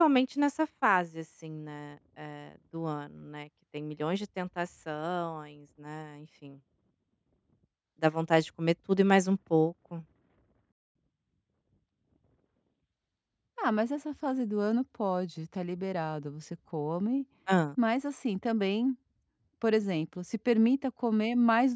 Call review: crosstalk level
none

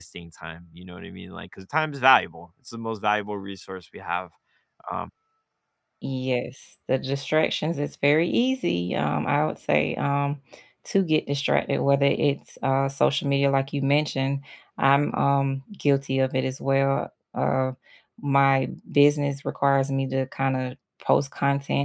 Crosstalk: none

